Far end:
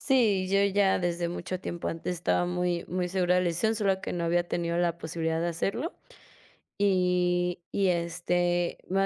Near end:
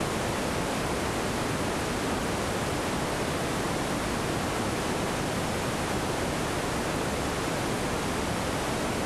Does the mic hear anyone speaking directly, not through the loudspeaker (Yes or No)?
No